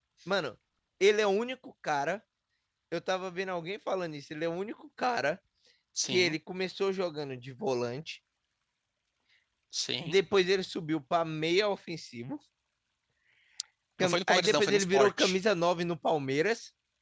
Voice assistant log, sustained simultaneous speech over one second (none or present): present